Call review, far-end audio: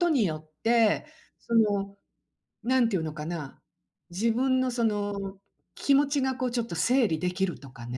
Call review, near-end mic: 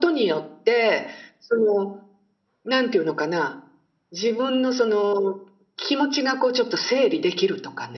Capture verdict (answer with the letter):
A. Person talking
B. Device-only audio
B